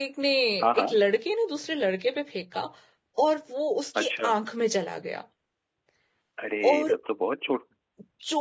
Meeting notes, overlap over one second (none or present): none